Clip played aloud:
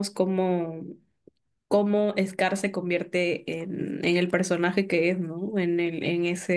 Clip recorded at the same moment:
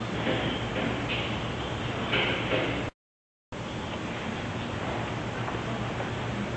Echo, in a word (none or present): none